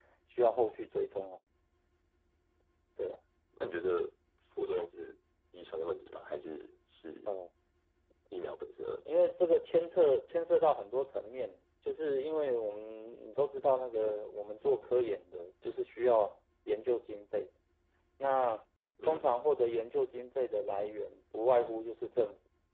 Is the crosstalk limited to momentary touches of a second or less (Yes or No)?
Yes